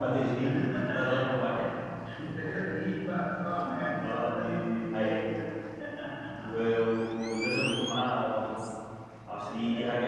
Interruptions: present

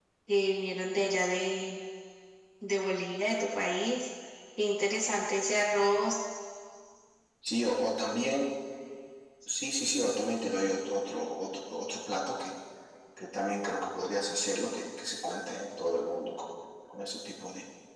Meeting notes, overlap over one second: none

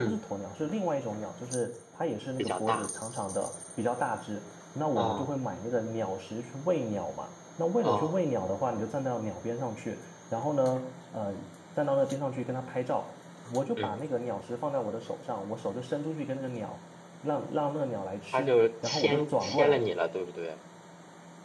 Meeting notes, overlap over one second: present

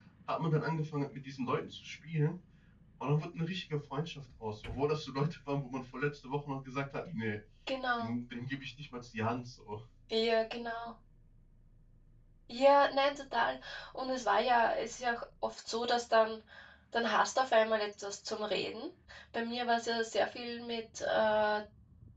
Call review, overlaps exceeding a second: none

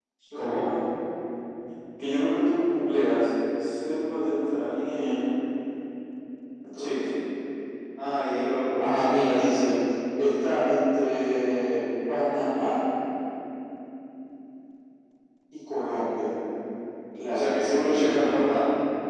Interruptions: present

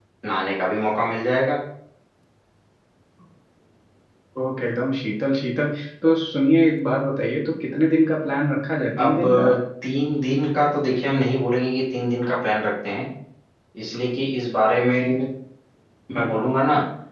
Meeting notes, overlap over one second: none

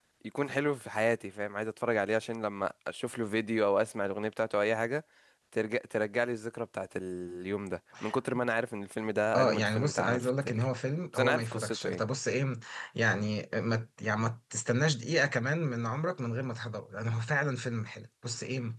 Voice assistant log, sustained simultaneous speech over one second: present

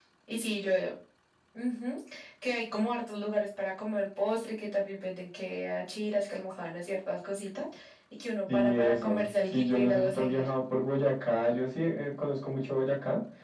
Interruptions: present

